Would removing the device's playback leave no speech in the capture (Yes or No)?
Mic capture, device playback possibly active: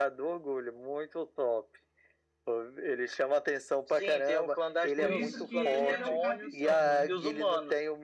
No